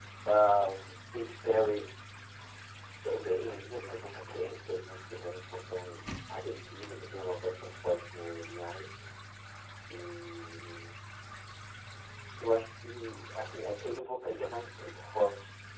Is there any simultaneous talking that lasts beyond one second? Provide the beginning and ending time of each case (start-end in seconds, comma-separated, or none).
none